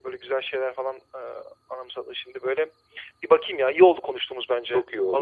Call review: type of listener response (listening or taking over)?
taking over